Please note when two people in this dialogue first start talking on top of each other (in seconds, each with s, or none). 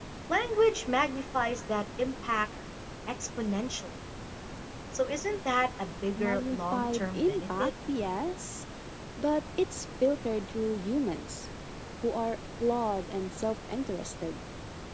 6.2 s